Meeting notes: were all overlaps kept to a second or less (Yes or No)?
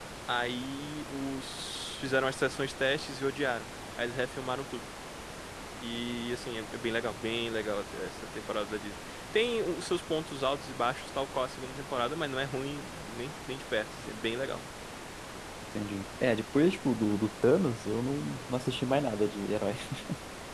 Yes